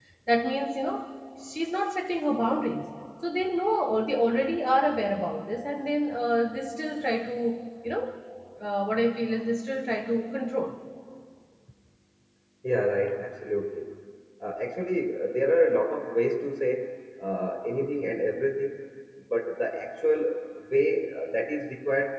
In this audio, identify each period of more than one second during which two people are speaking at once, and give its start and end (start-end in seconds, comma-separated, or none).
none